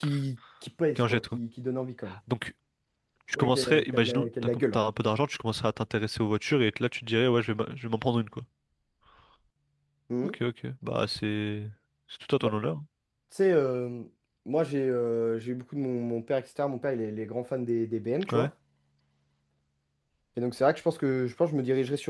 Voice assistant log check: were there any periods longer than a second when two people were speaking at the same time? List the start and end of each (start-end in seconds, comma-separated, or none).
3.4-4.8